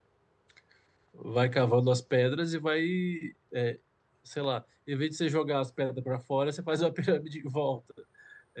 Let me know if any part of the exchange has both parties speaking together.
No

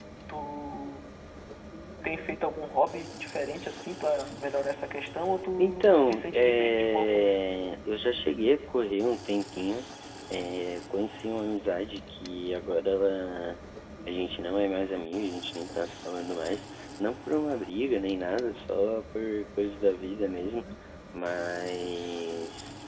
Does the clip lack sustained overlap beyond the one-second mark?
No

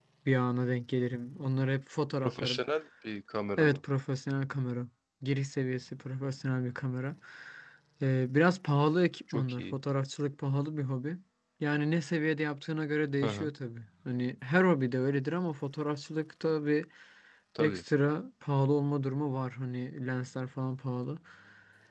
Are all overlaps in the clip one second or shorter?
Yes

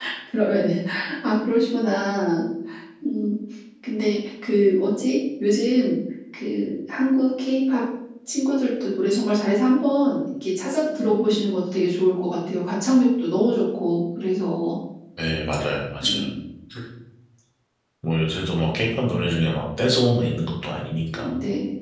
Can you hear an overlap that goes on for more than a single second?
No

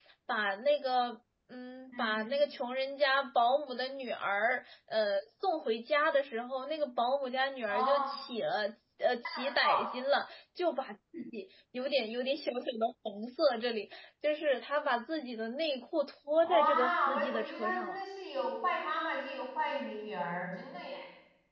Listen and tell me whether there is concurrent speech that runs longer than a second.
Yes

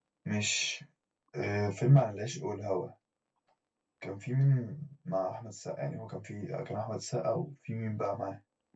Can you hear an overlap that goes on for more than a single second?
No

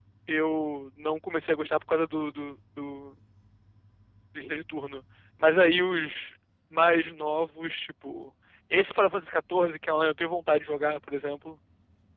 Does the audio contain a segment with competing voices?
No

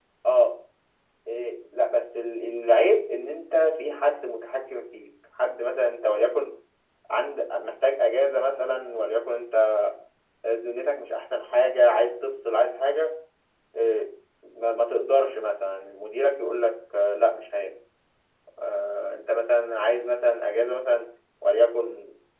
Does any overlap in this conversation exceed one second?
No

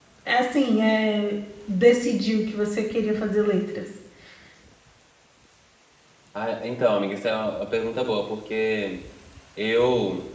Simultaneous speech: No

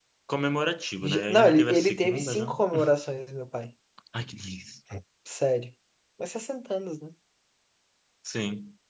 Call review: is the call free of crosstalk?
No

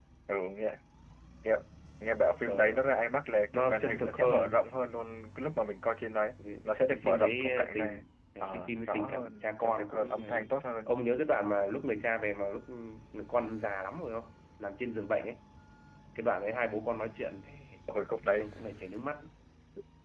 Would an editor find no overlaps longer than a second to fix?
No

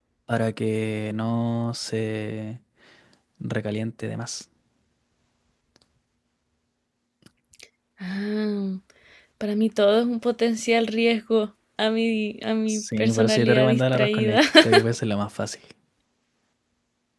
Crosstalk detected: Yes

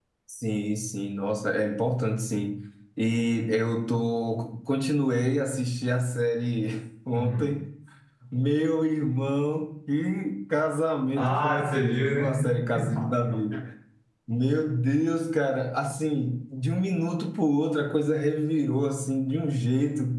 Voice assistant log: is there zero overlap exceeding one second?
No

